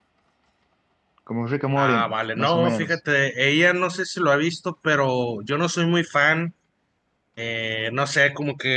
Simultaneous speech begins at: 2 s

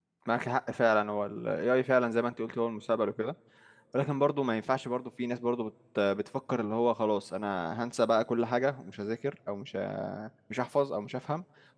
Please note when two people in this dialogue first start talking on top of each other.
none

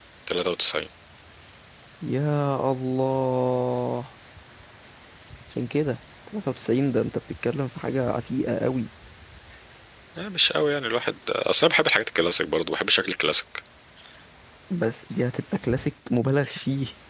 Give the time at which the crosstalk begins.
none

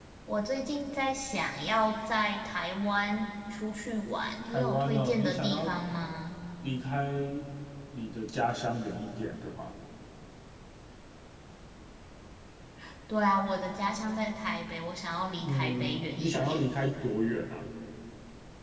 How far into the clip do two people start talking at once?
4 s

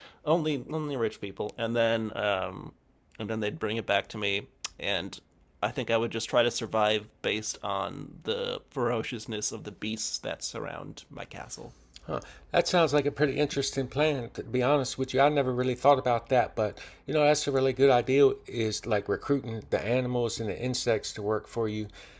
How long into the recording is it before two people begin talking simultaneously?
none

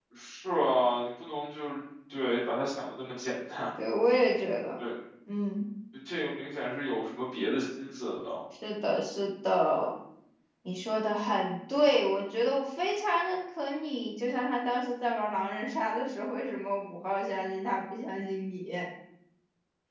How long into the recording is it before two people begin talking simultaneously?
none

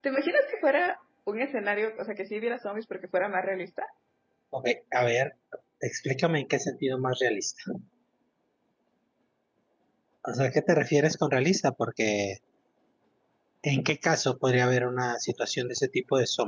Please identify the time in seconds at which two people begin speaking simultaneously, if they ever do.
none

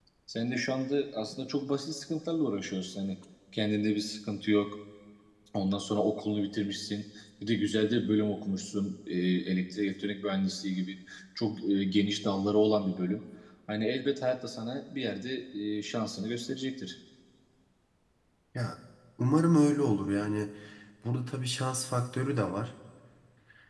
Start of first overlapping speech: none

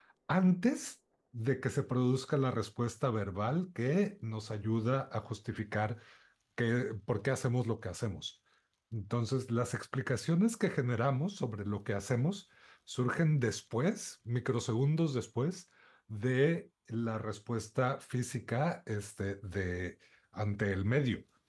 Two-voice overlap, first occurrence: none

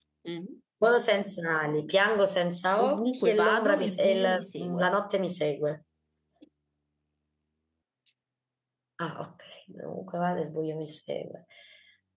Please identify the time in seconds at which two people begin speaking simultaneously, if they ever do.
3 s

